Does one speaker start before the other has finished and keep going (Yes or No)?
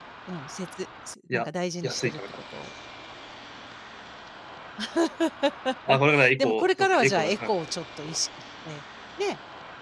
Yes